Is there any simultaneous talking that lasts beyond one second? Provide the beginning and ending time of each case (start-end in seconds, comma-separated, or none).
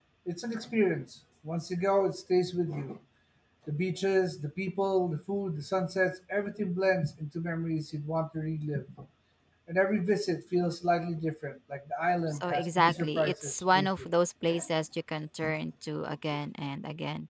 12.3-13.9